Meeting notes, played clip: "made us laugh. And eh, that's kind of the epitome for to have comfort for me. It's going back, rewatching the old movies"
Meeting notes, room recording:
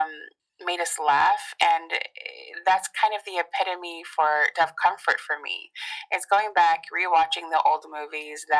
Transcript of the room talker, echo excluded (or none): none